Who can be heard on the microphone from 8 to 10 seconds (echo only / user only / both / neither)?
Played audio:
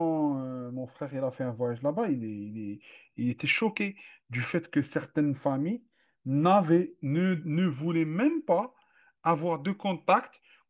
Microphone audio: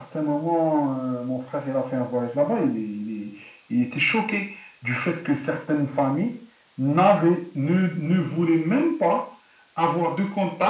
echo only